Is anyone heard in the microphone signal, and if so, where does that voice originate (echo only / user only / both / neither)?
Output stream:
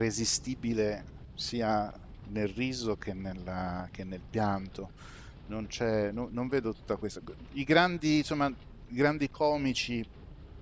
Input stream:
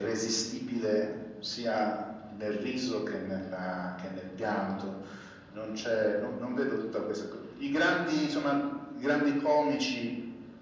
echo only